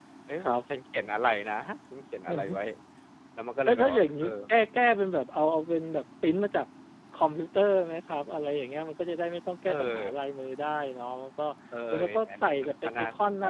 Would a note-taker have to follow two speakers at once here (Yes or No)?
Yes